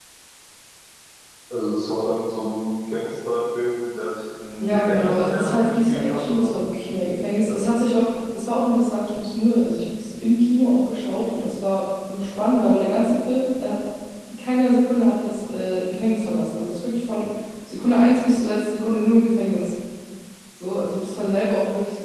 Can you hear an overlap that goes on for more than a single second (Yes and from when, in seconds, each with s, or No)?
Yes, from 4.6 s